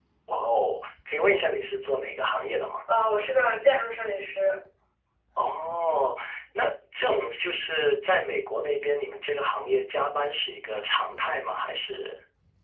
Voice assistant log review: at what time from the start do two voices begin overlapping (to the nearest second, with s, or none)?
none